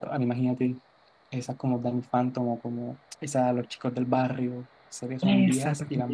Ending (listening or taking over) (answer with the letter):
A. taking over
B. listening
A